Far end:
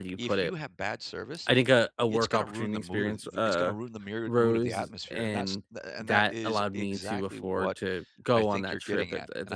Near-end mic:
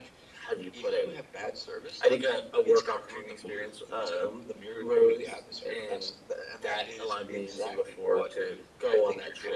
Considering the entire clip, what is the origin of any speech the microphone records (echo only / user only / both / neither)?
echo only